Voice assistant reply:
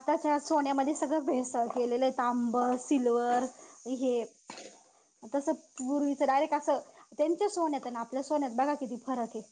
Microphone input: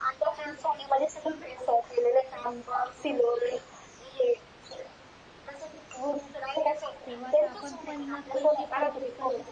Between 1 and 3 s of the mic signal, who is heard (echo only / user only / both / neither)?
echo only